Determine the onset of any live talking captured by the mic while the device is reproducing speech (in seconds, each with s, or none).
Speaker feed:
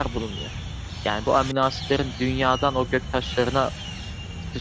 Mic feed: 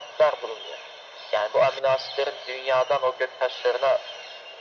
none